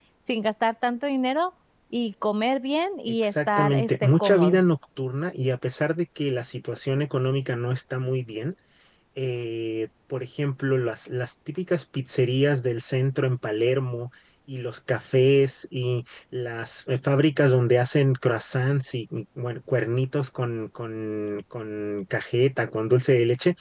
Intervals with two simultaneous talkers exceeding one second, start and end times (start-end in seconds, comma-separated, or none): 3.1-4.6